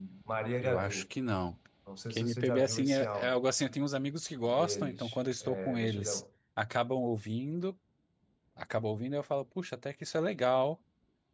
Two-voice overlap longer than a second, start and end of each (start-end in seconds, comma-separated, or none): 2.1-3.4, 4.4-6.2